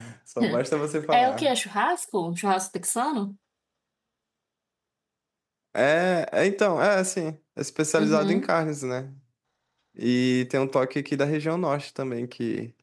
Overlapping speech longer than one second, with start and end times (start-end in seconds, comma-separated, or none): none